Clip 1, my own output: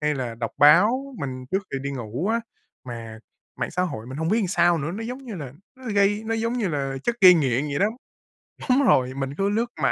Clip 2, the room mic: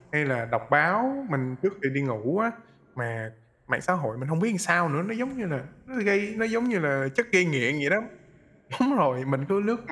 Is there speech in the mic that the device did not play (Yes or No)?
No